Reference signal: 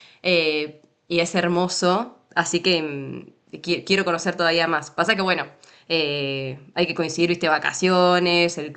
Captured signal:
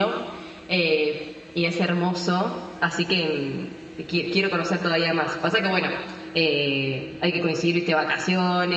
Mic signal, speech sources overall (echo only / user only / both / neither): echo only